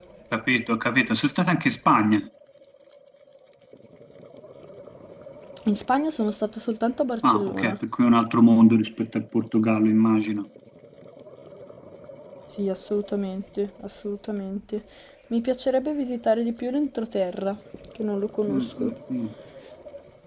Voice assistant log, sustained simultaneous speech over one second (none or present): none